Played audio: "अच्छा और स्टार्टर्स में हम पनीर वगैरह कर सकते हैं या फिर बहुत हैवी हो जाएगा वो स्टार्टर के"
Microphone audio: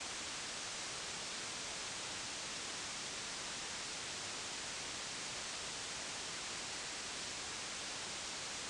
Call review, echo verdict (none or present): none